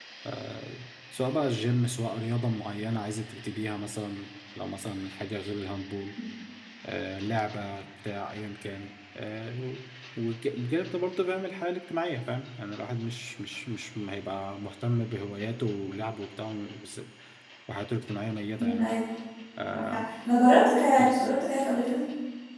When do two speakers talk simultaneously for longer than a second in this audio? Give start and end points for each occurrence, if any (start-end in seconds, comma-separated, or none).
none